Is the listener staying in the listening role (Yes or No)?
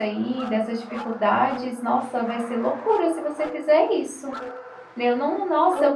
Yes